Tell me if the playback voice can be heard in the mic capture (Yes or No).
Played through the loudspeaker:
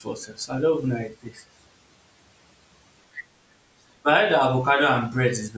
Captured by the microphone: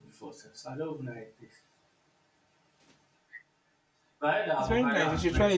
Yes